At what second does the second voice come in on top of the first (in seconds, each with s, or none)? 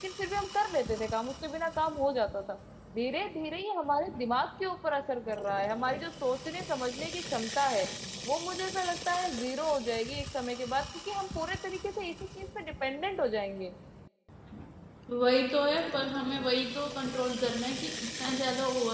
none